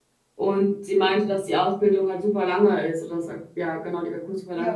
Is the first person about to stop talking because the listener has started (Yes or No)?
Yes